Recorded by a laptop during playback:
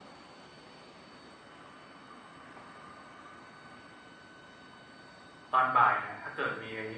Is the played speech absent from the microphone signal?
Yes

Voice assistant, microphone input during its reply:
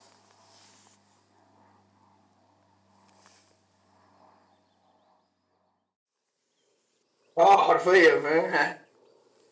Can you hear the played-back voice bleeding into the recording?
No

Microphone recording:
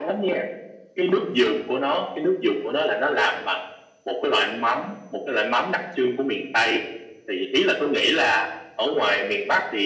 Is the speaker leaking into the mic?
Yes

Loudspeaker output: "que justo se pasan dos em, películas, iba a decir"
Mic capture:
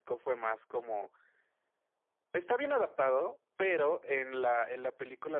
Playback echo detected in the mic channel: No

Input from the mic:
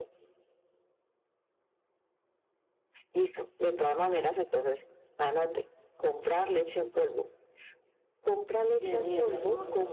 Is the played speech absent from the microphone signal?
No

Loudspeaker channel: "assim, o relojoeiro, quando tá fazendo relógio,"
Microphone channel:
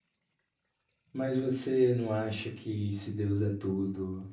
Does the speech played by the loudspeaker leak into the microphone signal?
No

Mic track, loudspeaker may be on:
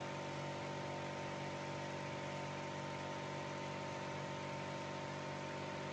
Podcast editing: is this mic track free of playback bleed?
Yes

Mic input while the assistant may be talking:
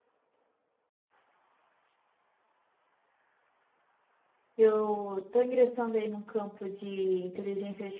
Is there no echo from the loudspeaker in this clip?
Yes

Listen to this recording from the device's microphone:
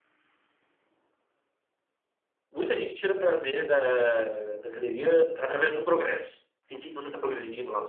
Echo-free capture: Yes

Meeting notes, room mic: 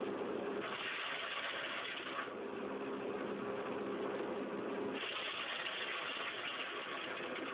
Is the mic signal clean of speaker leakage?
Yes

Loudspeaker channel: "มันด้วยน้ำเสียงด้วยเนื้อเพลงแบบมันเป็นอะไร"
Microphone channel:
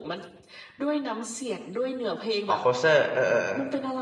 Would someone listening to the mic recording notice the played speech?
Yes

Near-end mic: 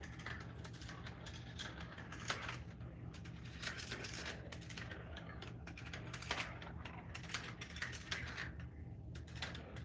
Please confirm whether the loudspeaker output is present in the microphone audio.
No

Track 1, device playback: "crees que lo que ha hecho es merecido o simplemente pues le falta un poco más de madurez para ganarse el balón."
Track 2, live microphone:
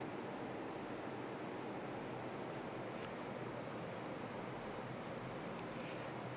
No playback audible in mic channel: Yes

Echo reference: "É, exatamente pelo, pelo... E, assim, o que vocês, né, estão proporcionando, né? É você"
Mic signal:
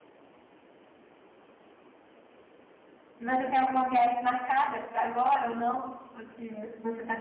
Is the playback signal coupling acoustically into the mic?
No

